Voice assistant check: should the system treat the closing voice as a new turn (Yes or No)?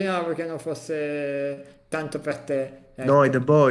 Yes